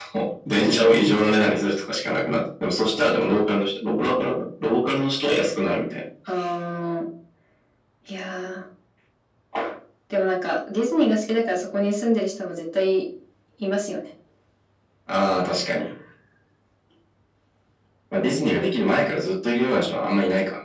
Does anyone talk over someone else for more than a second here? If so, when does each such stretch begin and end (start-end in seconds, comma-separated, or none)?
none